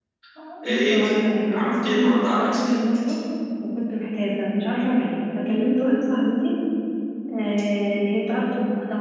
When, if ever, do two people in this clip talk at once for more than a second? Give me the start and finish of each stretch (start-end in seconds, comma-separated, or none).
1.5-2.8